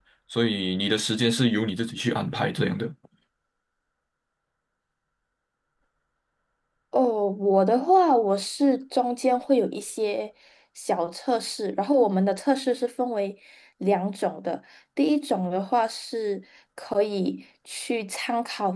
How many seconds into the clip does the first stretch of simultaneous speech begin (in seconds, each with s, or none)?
none